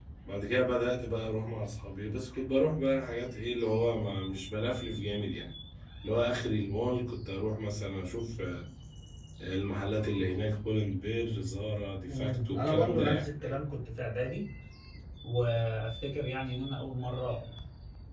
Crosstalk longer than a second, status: present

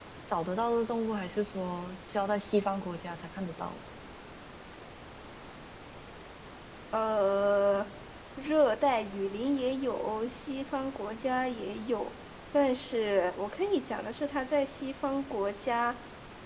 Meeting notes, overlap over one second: none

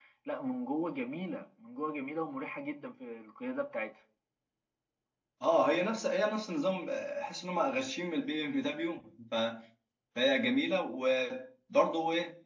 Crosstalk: none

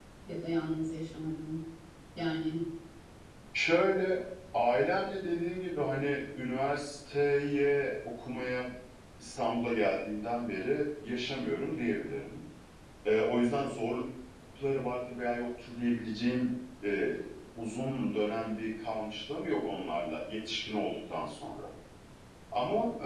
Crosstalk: none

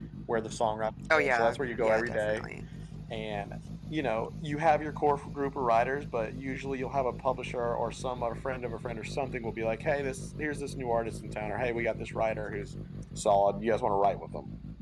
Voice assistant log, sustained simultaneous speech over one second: present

